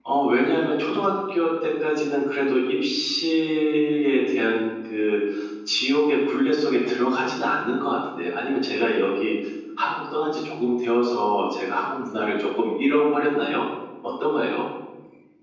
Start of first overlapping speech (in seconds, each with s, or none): none